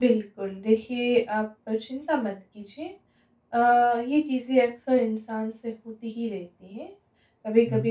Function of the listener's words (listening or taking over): listening